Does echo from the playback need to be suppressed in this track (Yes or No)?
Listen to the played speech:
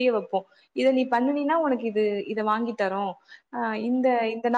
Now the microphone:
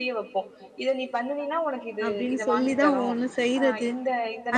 Yes